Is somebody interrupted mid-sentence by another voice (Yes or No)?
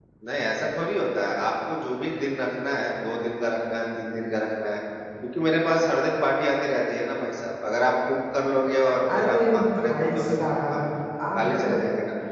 Yes